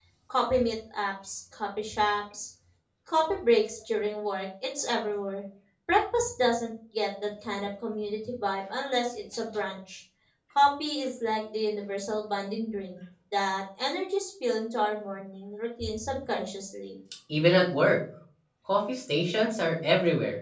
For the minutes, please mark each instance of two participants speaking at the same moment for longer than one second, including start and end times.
none

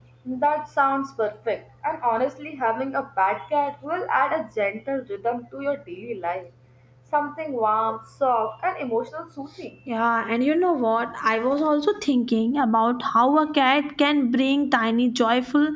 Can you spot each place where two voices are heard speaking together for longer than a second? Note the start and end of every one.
none

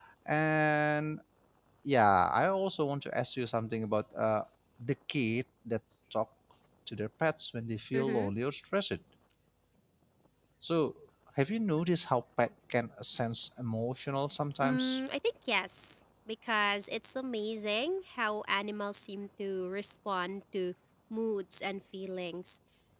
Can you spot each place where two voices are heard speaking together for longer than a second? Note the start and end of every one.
none

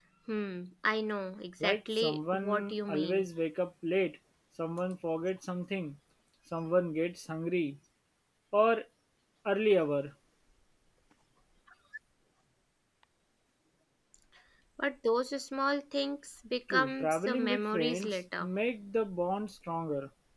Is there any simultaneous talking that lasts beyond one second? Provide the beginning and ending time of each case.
1.6-3.3, 16.7-18.5

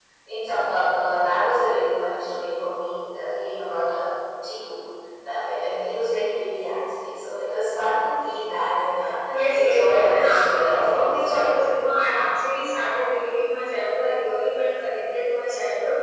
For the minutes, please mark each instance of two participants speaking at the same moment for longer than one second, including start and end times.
9.5-11.8

